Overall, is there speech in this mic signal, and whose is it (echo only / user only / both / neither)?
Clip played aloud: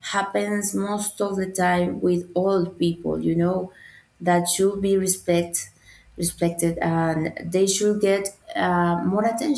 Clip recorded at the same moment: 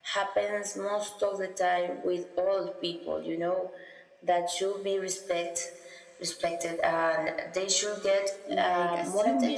both